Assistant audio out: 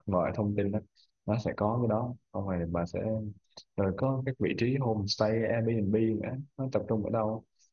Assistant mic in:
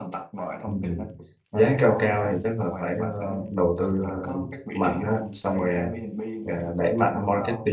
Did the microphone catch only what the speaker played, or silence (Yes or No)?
No